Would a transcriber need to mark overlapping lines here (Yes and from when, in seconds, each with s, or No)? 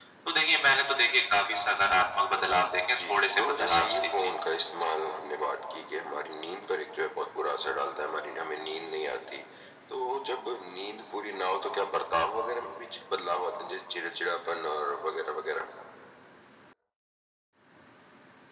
Yes, from 2.8 s